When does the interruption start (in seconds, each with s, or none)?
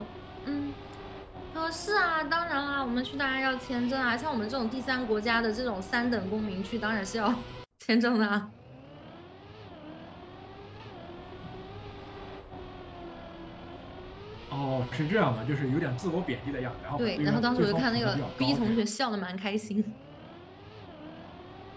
17.0 s